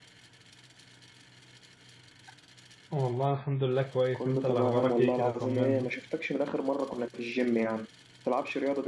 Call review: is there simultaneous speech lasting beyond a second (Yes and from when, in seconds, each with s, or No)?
Yes, from 4.1 s